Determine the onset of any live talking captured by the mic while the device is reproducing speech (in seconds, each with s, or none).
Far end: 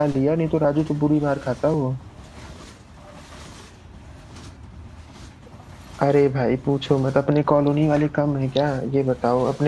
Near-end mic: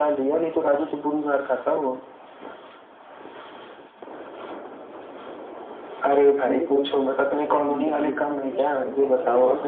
6.2 s